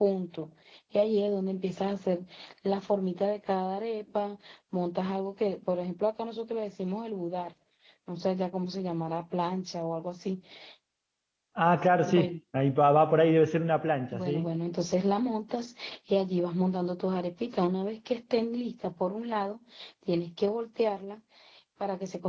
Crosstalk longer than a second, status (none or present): none